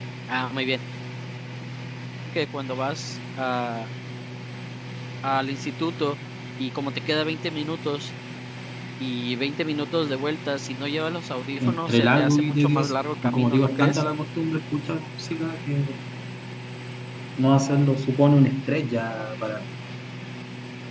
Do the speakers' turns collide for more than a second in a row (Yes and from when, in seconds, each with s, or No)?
Yes, from 11.6 s